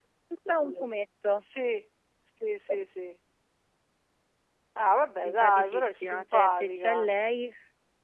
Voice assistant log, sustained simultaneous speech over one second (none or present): present